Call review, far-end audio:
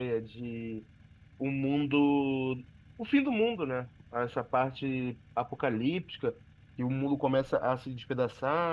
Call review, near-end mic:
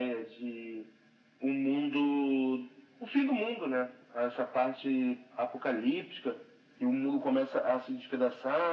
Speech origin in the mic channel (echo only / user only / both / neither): echo only